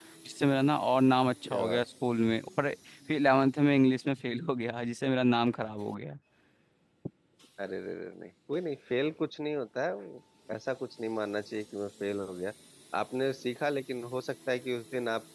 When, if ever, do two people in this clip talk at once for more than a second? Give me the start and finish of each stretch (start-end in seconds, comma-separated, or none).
none